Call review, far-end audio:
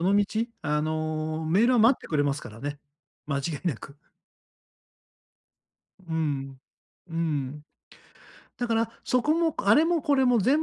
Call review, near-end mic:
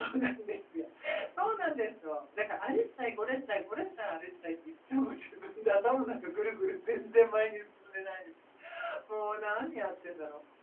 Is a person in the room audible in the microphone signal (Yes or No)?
Yes